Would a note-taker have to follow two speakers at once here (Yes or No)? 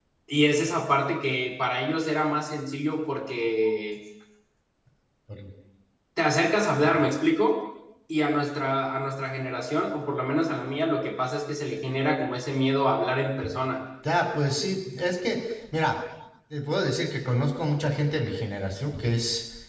No